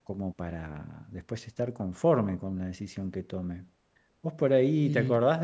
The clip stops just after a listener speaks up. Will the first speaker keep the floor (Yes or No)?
Yes